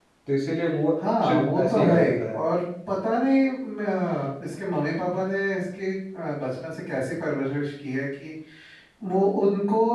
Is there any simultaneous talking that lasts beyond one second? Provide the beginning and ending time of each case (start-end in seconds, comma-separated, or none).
1.0-2.4